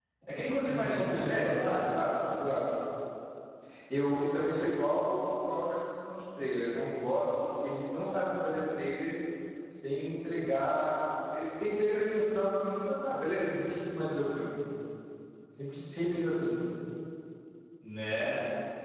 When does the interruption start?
0.7 s

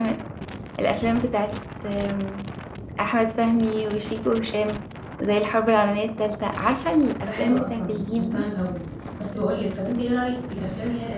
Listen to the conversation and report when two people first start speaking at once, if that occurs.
7.2 s

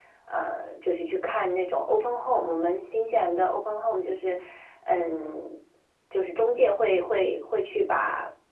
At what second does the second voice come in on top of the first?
none

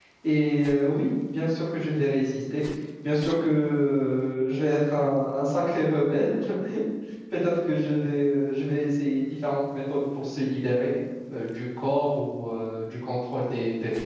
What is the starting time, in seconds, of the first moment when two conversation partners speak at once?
none

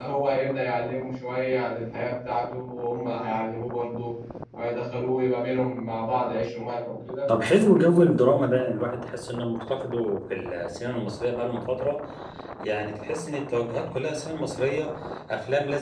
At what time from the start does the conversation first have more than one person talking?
none

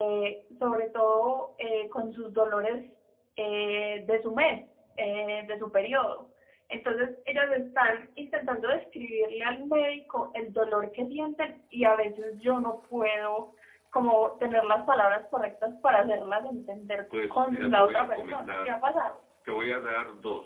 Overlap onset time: 17.1 s

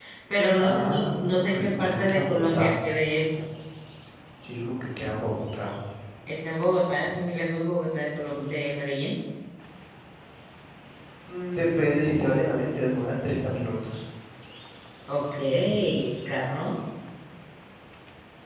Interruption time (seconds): 0.6 s

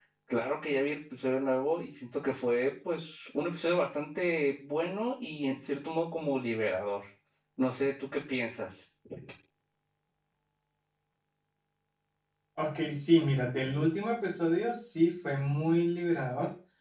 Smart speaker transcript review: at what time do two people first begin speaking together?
none

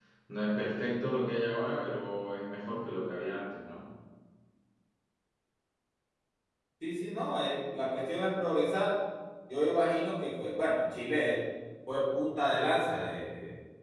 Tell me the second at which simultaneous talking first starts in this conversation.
none

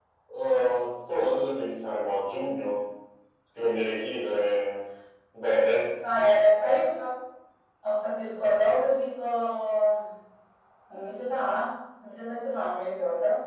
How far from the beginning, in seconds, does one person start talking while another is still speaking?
none

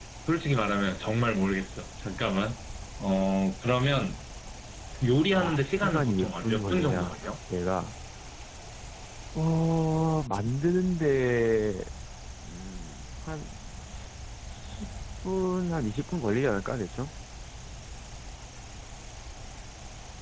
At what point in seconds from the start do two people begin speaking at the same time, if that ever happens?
5.3 s

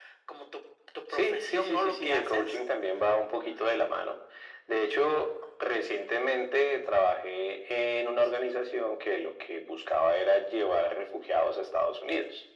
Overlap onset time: 1.1 s

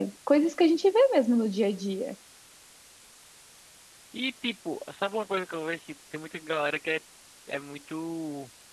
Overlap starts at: none

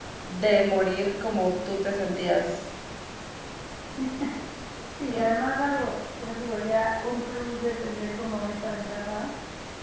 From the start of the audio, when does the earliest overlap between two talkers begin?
none

